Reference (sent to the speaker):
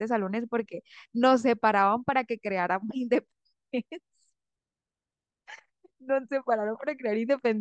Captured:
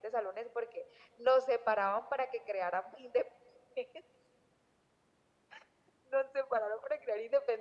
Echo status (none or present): present